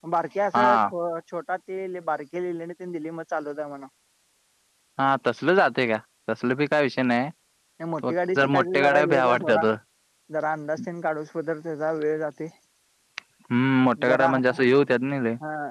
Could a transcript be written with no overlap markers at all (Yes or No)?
No